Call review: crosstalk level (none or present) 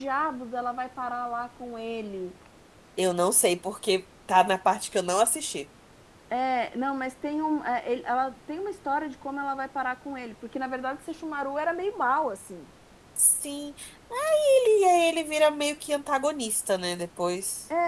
none